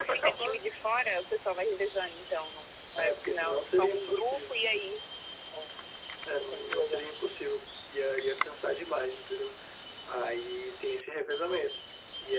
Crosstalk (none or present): present